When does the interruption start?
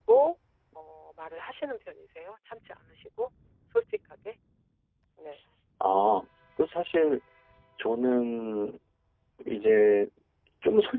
none

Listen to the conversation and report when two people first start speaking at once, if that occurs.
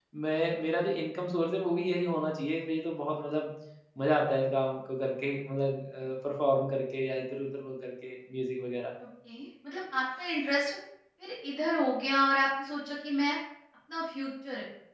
none

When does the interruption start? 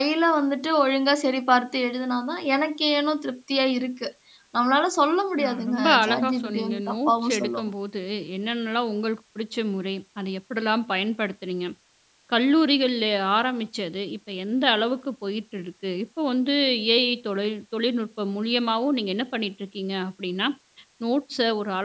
5.4 s

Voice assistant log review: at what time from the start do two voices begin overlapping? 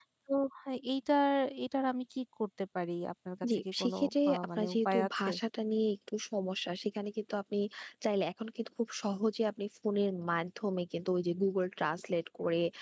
3.4 s

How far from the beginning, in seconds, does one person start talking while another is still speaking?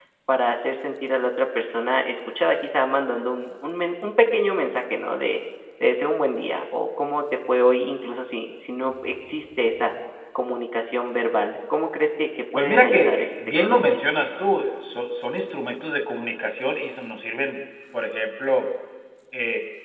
12.6 s

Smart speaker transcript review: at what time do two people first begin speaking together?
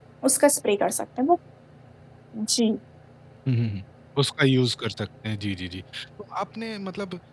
none

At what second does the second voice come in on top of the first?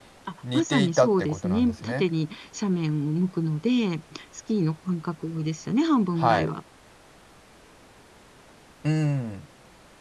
0.5 s

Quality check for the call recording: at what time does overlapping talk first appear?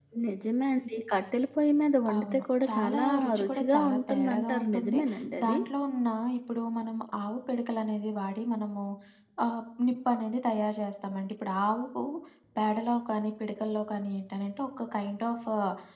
2.1 s

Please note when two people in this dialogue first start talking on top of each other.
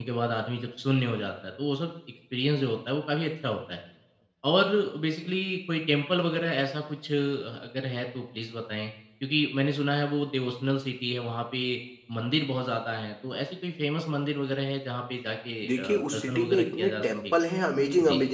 15.6 s

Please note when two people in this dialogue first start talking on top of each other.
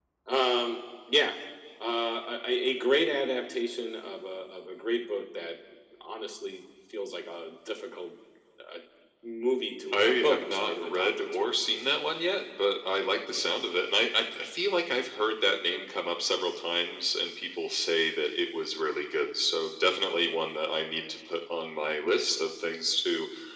9.9 s

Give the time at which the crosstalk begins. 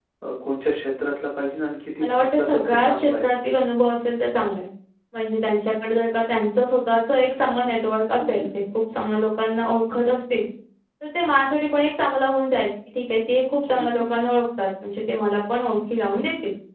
2.0 s

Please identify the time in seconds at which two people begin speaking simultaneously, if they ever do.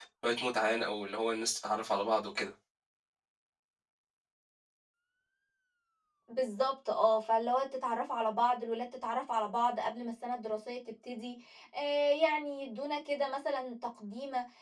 none

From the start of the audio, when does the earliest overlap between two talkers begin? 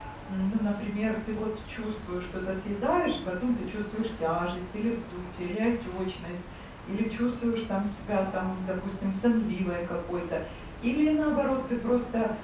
none

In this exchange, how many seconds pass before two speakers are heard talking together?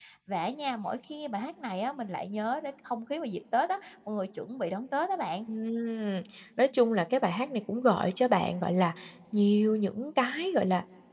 none

